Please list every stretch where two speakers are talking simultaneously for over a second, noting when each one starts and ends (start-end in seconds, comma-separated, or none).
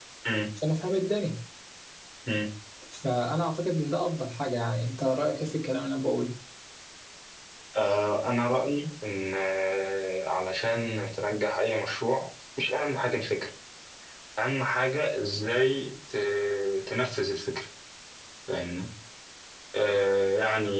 none